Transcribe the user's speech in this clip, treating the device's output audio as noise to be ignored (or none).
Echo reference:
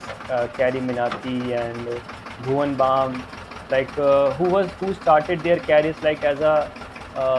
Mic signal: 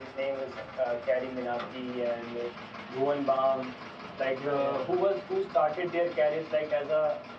yeah yeah, yeah.